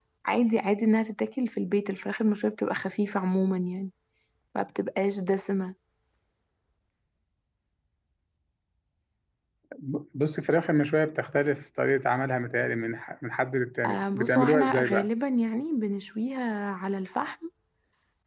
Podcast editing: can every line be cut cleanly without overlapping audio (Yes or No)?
No